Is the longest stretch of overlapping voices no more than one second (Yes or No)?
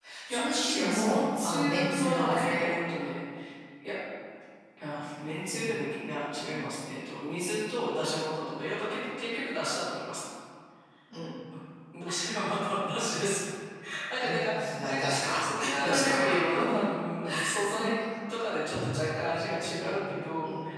No